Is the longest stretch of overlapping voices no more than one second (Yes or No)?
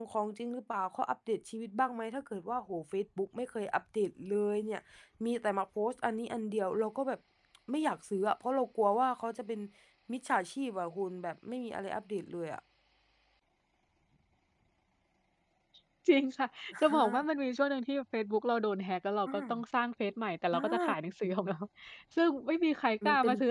Yes